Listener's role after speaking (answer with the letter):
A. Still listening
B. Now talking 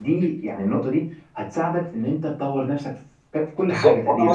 B